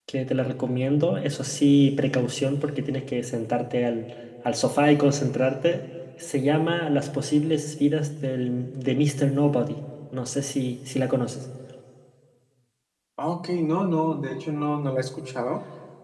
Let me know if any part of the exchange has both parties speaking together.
No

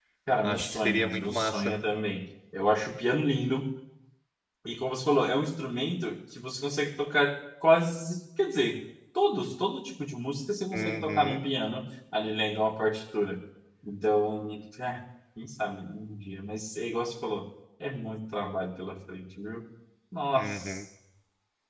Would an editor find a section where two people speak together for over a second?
Yes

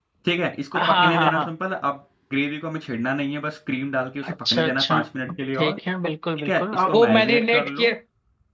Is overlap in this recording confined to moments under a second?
No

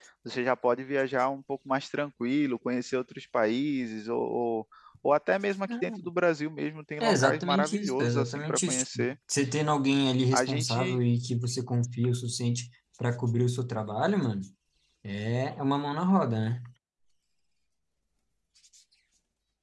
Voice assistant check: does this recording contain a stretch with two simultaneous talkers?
Yes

